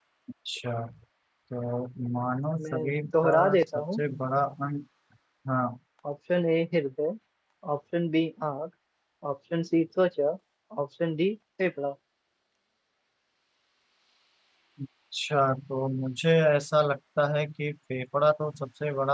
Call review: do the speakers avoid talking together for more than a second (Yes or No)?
No